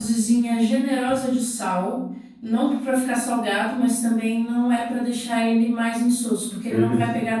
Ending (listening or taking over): listening